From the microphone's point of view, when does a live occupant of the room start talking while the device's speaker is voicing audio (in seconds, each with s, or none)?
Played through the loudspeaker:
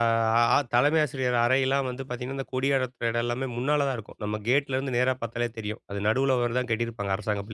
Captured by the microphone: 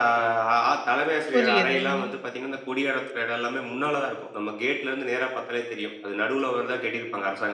1.3 s